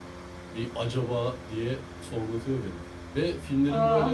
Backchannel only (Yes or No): Yes